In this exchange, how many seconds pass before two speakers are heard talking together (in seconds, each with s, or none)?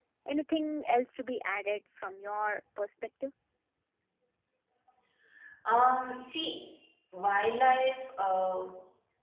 none